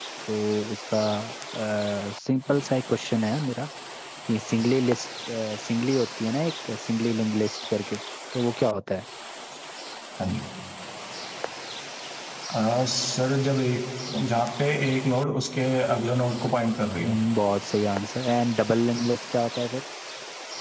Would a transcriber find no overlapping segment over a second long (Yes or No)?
Yes